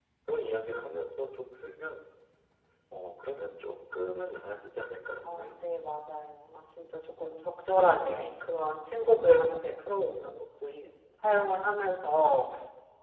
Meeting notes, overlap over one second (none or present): none